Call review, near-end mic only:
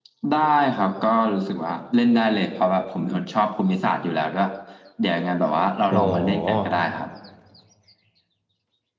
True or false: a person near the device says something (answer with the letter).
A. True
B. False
A